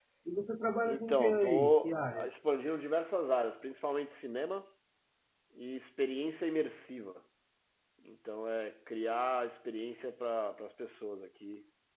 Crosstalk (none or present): present